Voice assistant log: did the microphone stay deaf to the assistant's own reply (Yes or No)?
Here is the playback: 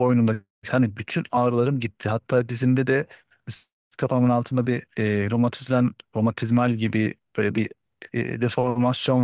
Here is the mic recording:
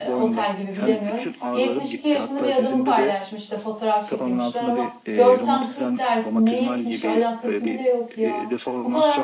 No